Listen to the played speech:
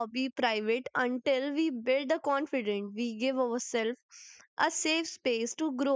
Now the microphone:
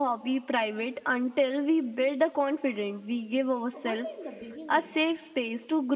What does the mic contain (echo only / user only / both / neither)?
both